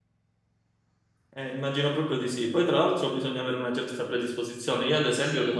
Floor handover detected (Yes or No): No